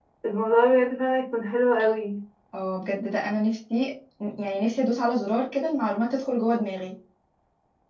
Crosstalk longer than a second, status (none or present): none